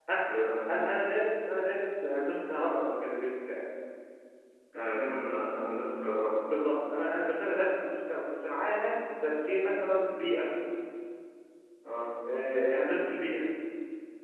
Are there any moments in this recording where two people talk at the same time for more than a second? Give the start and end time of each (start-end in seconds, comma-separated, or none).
none